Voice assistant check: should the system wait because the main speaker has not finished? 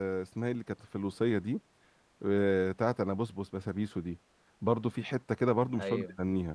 Yes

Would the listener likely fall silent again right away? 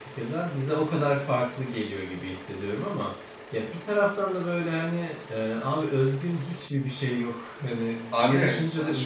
No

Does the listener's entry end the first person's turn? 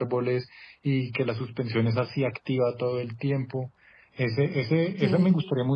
No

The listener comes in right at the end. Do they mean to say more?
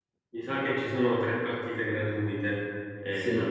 Yes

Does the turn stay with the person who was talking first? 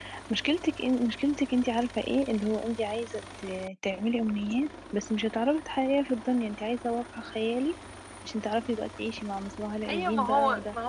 No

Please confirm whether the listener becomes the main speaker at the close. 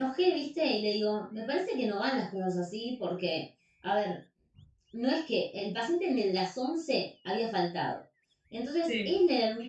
No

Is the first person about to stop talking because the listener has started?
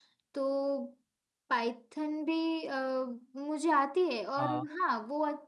No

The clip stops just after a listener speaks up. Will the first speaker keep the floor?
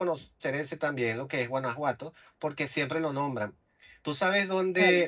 Yes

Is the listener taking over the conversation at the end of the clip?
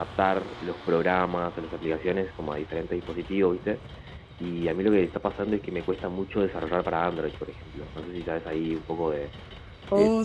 Yes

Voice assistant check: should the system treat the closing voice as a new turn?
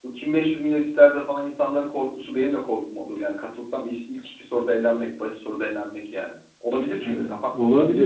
Yes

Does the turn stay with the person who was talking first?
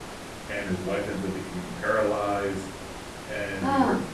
Yes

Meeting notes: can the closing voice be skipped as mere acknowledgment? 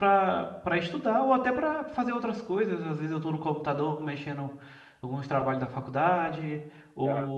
Yes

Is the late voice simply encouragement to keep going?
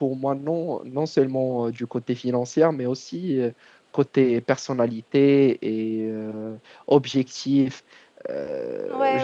No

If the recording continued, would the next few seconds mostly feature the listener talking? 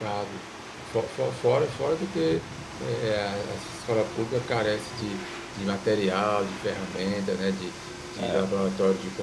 No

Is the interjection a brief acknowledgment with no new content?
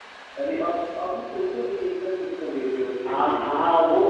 No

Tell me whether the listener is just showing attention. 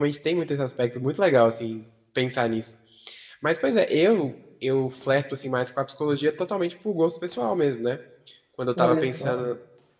Yes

